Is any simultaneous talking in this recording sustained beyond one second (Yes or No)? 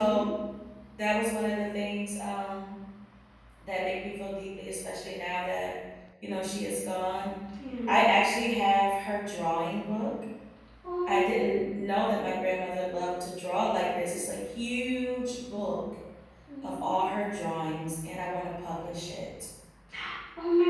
No